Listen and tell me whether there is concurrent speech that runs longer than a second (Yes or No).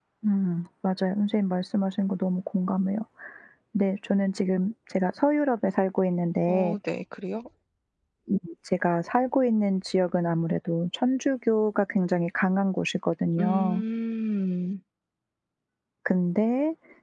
No